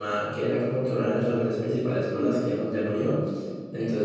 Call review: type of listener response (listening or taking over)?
listening